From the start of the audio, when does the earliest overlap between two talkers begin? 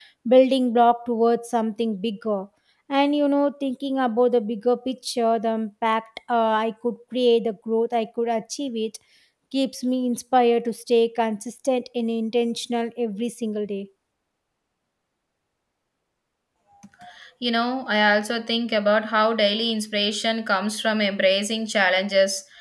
none

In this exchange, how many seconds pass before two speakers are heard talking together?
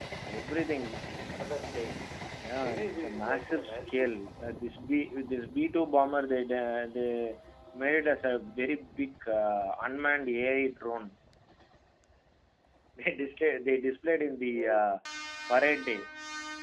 2.6 s

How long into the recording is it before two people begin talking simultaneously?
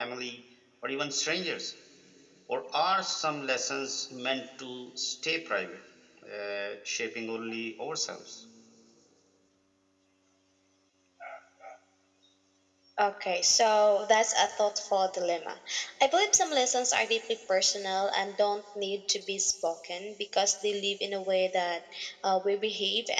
none

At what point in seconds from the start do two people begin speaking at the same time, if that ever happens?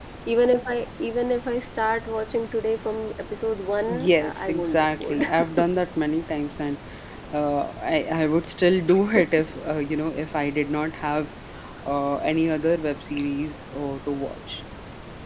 3.9 s

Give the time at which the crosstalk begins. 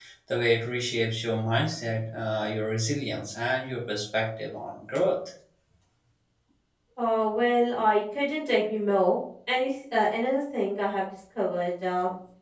none

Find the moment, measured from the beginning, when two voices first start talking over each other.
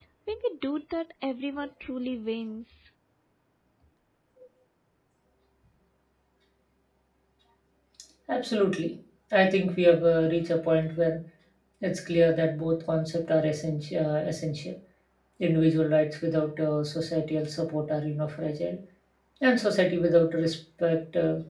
none

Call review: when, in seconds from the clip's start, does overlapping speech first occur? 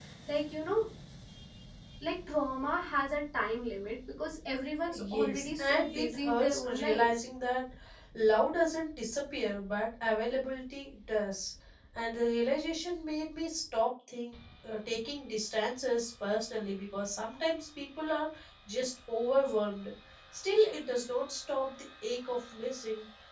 4.9 s

